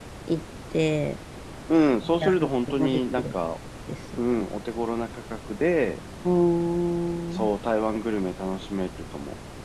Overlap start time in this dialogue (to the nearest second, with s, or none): 2 s